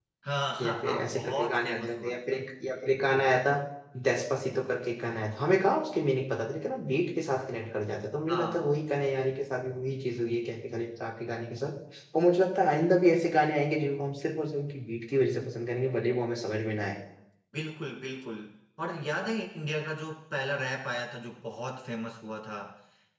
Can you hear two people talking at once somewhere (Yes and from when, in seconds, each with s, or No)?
Yes, from 0.6 s